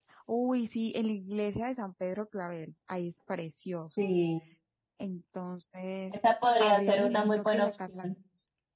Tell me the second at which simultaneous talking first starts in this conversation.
6.6 s

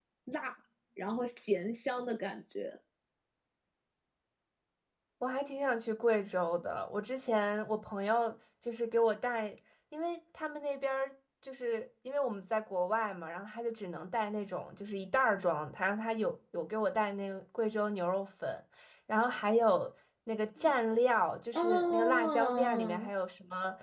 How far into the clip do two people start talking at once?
21.5 s

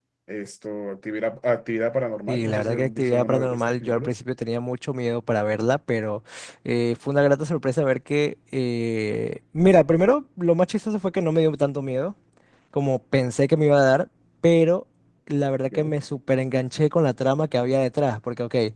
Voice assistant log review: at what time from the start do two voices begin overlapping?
2.3 s

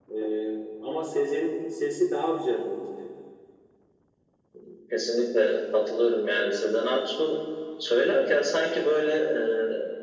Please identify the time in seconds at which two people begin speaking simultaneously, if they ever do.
none

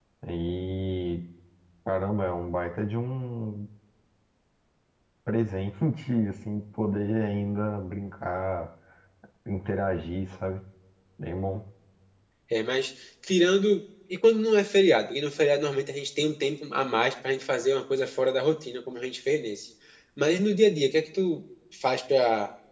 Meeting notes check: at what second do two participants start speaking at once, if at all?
none

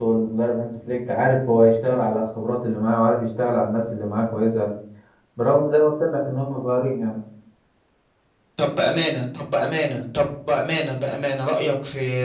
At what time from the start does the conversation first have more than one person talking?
none

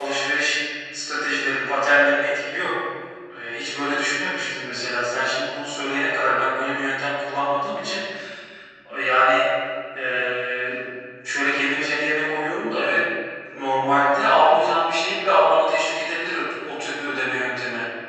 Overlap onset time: none

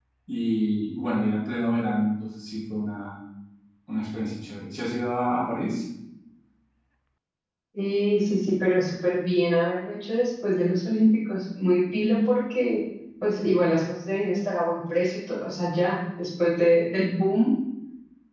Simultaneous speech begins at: none

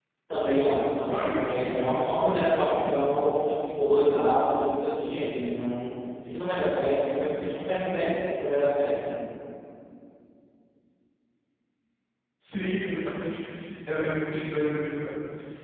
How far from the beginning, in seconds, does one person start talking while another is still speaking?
1.0 s

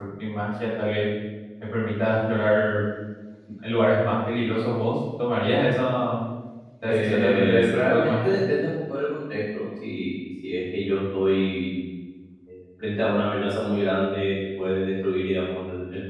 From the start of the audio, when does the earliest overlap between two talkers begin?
6.9 s

